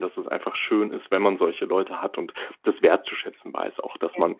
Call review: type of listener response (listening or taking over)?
listening